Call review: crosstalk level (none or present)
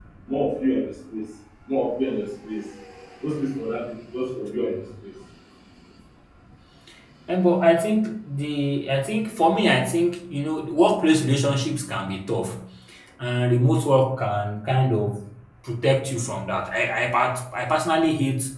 none